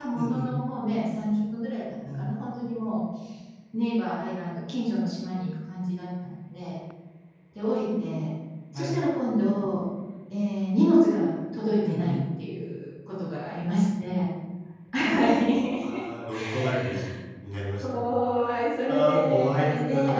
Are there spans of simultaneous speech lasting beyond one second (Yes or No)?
Yes